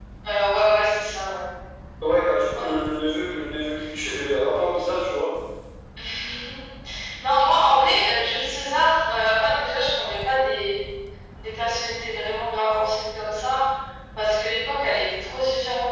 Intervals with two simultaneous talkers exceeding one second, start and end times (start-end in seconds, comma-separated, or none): none